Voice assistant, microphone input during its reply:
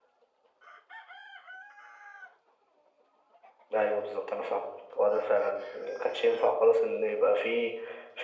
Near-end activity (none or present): none